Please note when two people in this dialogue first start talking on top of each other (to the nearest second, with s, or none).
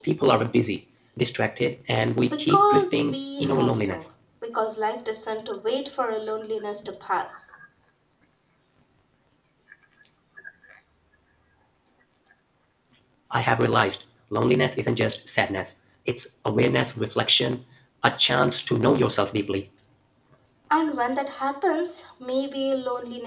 2 s